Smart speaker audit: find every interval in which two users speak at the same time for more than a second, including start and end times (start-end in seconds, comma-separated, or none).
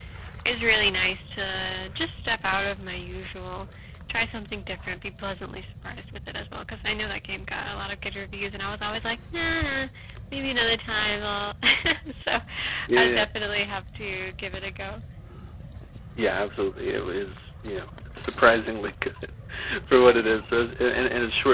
none